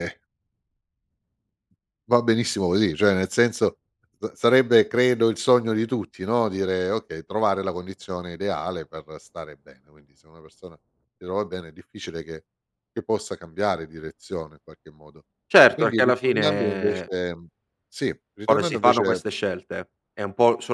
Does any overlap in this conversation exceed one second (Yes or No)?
Yes